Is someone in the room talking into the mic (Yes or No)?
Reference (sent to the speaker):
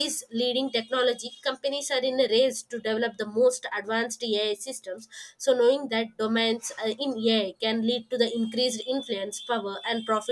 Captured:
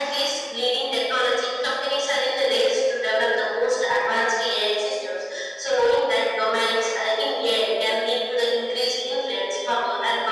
No